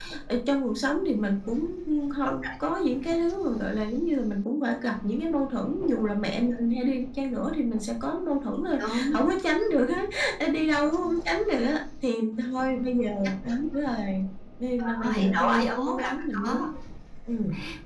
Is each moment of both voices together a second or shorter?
No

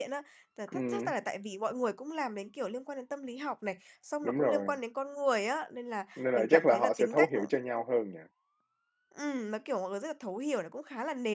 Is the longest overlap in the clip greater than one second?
Yes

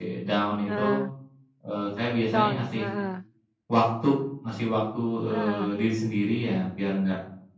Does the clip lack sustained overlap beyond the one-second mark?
Yes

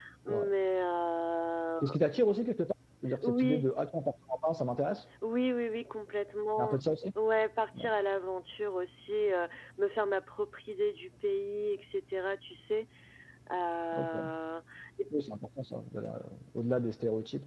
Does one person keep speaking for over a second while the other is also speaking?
No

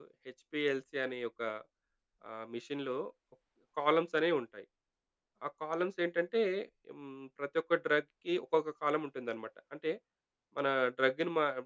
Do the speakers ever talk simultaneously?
No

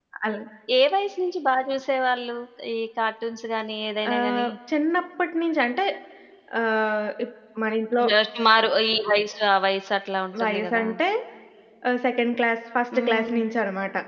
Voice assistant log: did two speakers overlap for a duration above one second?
No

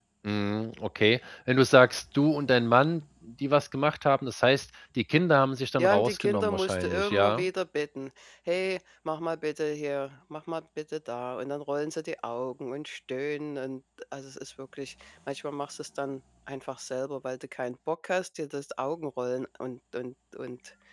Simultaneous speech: Yes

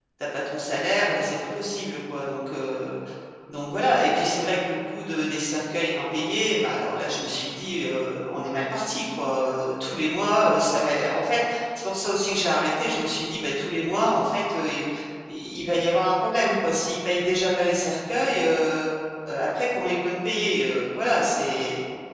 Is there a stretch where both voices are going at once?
No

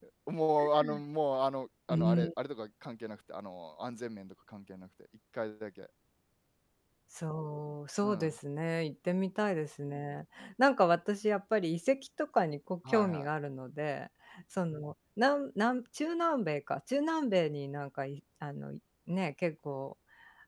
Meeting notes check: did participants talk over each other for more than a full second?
No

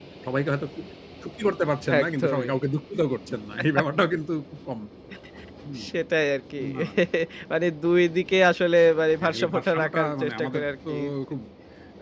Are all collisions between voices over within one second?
No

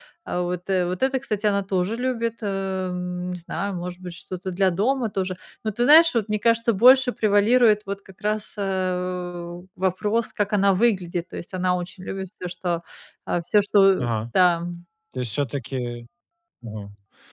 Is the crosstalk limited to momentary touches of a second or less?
Yes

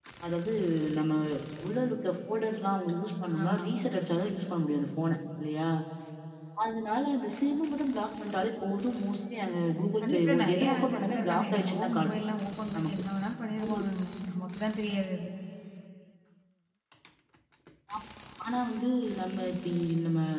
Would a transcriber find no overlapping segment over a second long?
No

